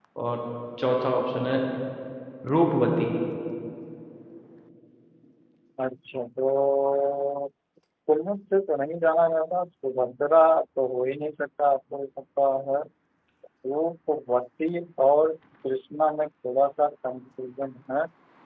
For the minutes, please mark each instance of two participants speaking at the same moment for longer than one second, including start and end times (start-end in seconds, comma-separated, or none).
none